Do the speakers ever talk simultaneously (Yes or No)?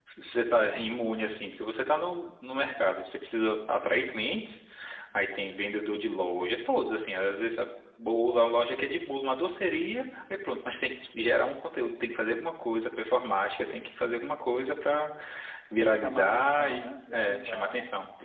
Yes